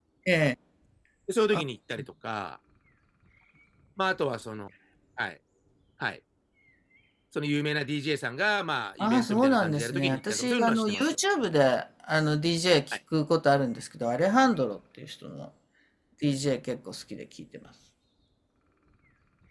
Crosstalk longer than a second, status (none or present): present